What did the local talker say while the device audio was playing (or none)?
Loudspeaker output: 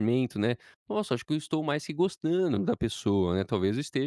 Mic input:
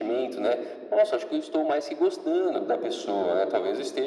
none